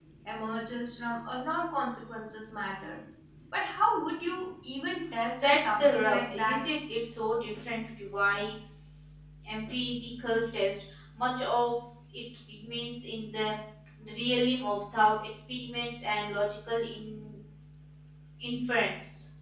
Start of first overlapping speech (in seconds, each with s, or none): 5.4 s